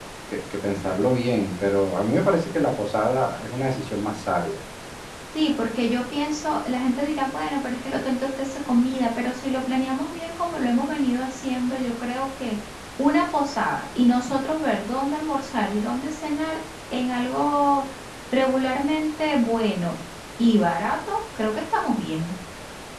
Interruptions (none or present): none